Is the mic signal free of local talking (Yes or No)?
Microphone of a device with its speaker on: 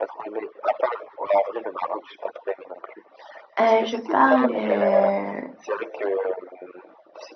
No